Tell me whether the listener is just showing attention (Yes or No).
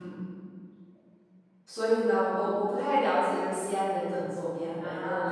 No